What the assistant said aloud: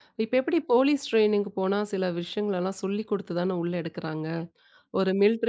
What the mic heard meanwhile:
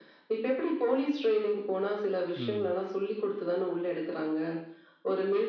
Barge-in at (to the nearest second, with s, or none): 2 s